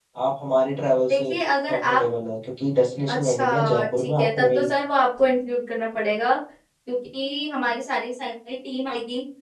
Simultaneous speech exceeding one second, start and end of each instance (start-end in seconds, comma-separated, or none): 3.1-4.7